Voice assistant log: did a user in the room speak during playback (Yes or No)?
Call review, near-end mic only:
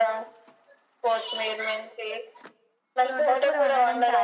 Yes